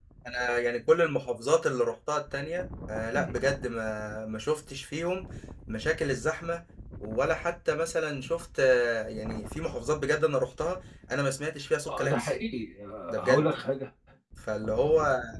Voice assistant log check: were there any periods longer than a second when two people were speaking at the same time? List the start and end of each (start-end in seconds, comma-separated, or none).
none